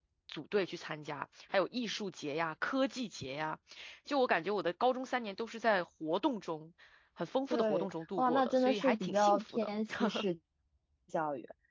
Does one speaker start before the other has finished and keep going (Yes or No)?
Yes